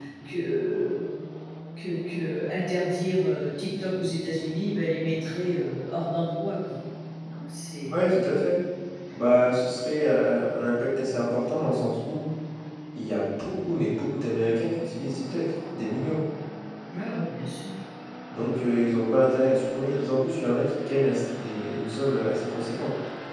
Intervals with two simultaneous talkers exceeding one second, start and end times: none

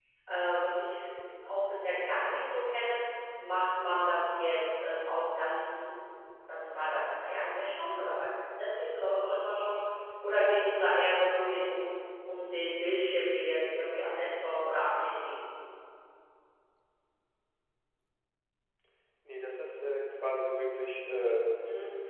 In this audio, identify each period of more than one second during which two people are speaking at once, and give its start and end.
none

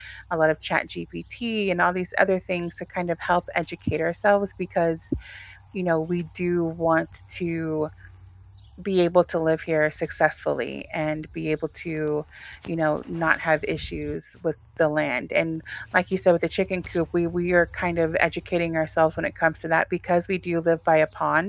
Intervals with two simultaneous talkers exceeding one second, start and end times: none

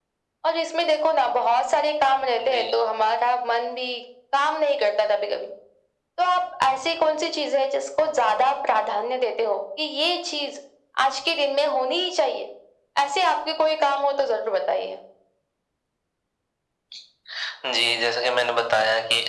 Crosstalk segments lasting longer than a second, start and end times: none

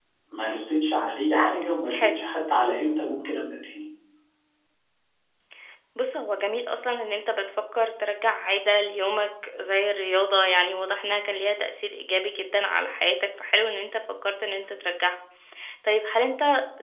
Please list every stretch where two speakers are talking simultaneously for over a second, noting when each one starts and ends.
none

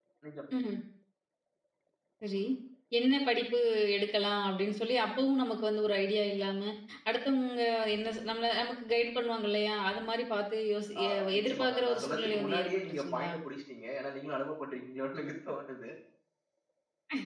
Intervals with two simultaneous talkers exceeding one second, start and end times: 11.0-13.3

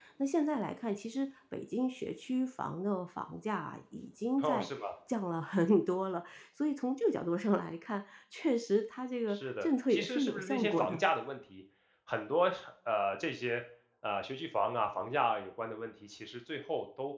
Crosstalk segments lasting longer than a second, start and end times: 9.3-11.0

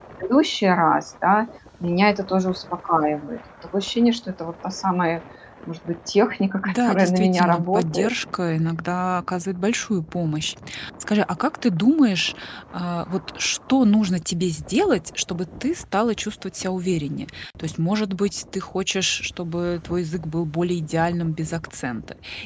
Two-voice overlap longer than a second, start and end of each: 6.6-8.1

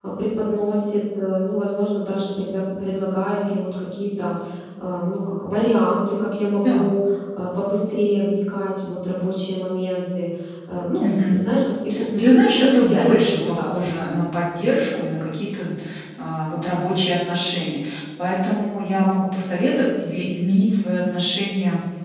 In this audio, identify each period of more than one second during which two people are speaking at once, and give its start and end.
12.2-13.7

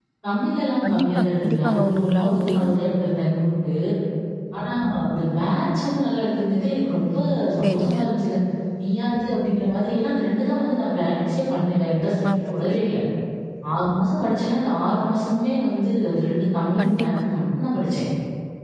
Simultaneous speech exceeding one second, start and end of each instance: 0.8-2.8

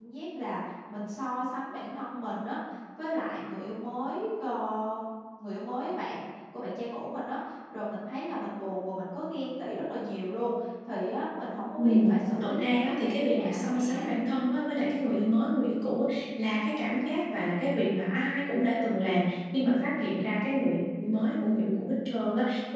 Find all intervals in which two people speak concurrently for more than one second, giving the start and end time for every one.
12.4-14.1

